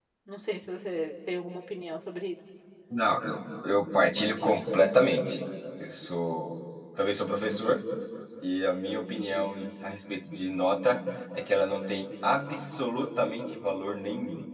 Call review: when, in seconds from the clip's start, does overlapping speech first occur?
none

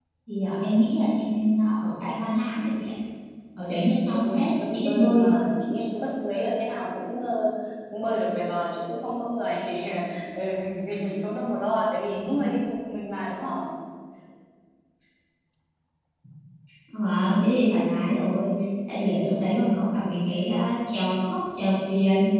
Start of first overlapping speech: 4 s

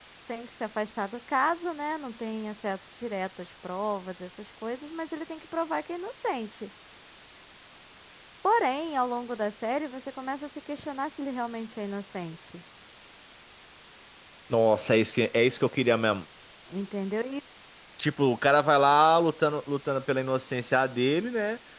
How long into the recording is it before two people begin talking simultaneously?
none

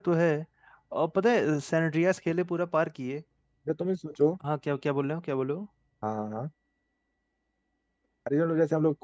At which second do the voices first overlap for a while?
none

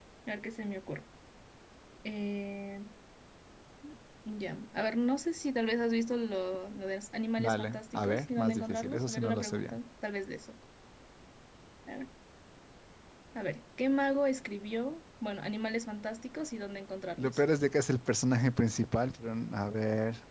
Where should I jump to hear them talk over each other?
7 s

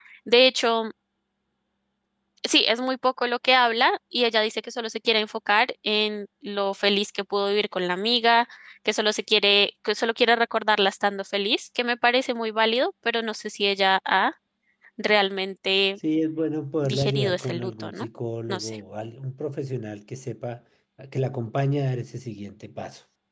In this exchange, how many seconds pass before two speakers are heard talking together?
17 s

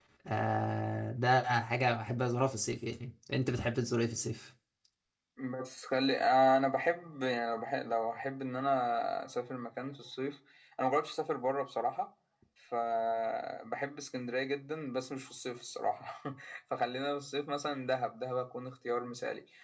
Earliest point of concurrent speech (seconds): none

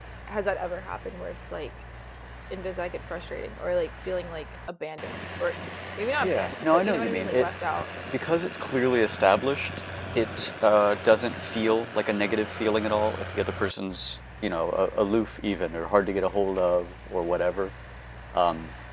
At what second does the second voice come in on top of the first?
6 s

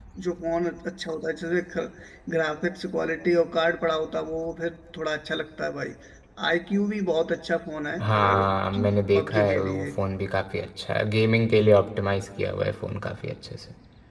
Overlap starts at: 8 s

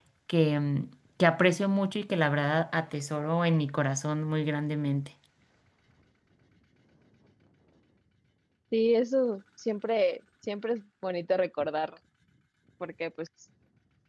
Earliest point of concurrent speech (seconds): none

